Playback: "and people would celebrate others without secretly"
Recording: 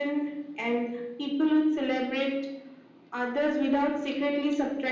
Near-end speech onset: none

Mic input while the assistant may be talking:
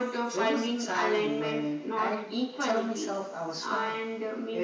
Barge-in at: none

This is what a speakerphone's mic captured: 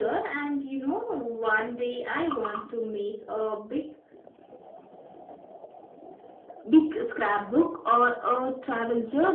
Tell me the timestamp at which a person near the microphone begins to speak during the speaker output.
none

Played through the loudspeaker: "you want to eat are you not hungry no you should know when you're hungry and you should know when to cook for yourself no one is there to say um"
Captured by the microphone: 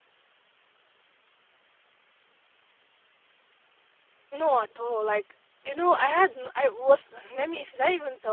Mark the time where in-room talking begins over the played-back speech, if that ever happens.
4.3 s

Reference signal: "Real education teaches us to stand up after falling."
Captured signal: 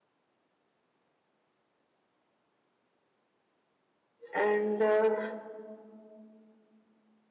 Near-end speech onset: 4.3 s

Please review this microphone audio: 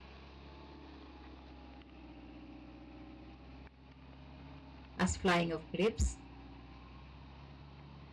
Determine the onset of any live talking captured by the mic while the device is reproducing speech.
5.0 s

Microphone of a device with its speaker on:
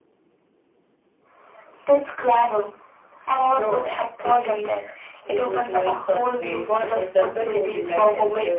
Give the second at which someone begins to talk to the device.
none

